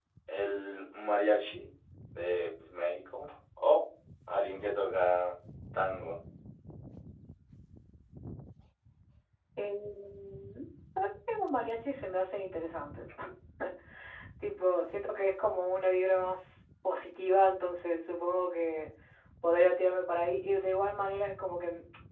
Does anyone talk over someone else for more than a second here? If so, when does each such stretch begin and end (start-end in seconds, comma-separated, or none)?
none